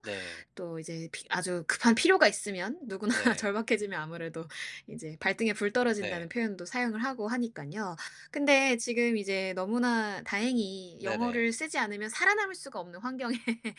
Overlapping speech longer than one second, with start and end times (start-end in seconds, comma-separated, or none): none